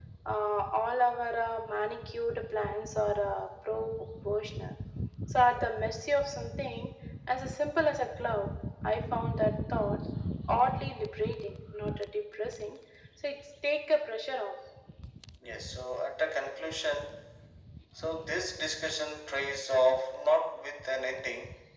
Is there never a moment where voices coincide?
Yes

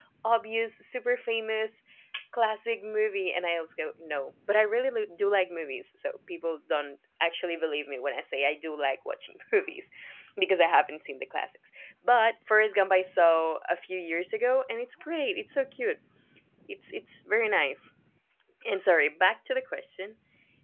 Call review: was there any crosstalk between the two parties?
No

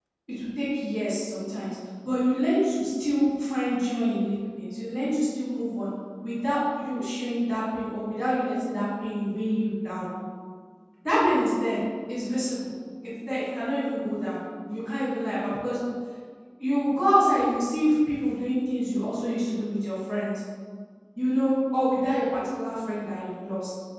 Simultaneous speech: No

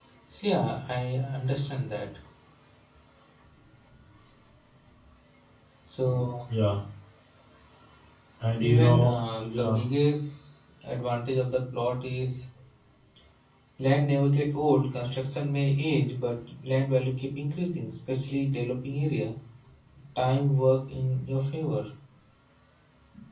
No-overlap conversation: No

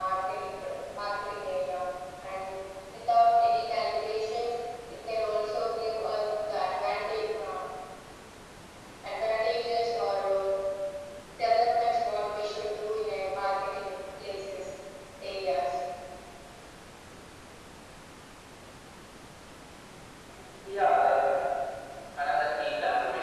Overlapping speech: No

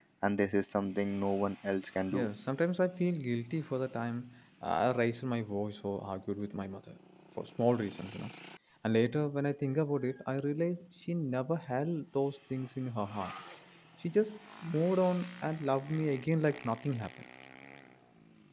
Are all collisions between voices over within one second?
Yes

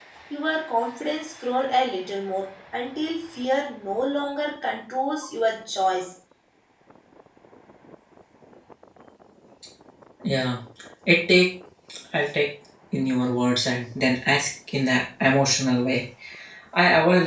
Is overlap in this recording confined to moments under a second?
Yes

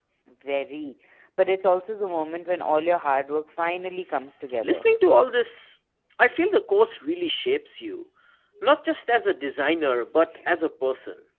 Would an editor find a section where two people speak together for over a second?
No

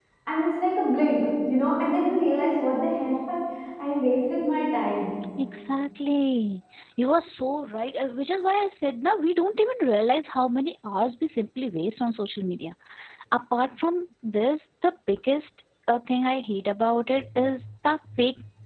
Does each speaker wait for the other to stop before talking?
Yes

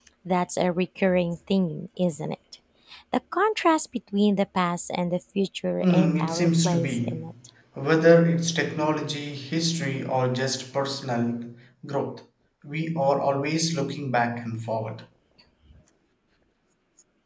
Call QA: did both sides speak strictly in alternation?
No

